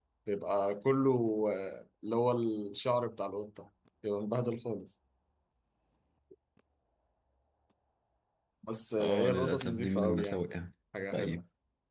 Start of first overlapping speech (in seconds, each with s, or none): 9.0 s